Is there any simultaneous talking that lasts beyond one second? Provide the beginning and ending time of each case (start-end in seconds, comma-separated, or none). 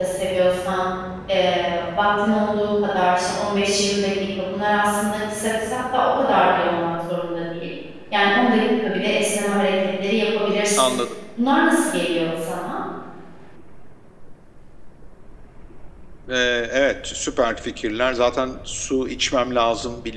none